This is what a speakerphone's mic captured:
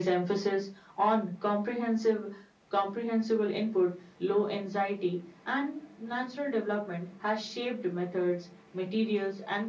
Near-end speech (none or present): none